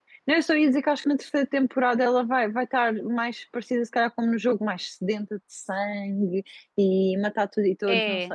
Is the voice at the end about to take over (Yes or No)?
Yes